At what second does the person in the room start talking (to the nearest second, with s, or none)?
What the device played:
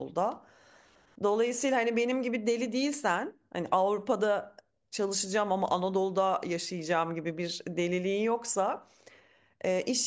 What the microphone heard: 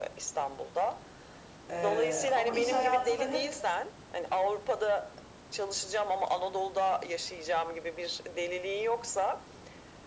2 s